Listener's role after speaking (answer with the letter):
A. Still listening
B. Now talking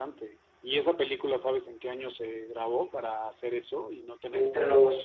B